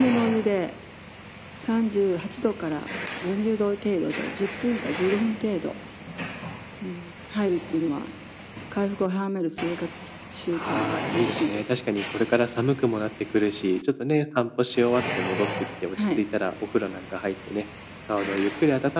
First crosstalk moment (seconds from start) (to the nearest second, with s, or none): 11 s